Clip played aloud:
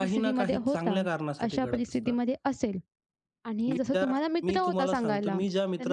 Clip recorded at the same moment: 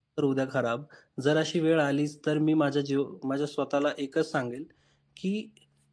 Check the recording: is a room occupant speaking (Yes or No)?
Yes